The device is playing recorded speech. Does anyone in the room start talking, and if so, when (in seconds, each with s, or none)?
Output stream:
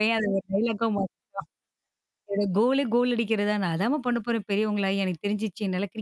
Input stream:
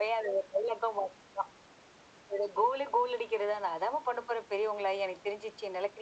none